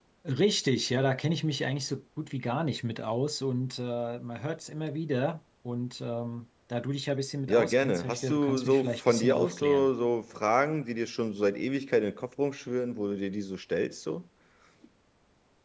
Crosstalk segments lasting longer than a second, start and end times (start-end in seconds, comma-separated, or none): 7.5-9.9